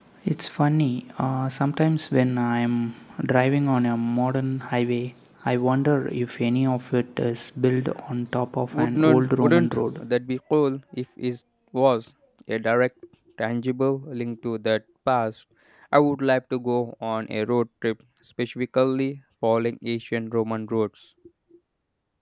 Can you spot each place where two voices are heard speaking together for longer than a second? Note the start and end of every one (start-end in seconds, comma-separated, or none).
8.7-10.0